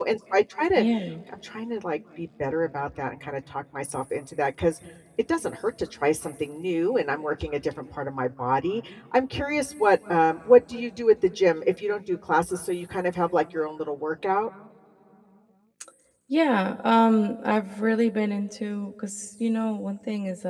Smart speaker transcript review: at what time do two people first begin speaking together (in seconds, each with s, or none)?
none